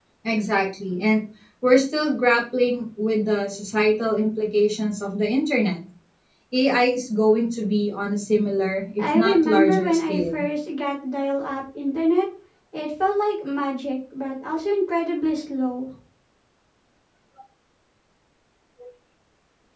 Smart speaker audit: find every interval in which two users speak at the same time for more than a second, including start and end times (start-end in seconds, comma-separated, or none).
9.0-10.4